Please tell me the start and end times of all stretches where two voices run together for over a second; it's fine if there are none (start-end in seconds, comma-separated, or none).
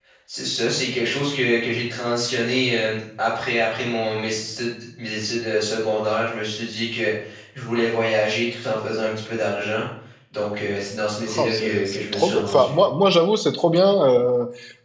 11.3-12.7